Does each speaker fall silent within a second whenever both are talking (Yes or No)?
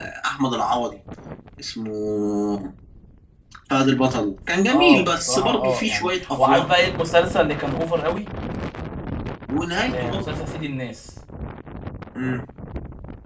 No